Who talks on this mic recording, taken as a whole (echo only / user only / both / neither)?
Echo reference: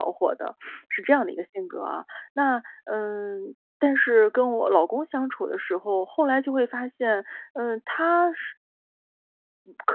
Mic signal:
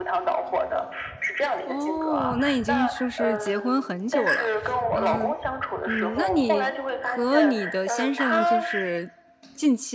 both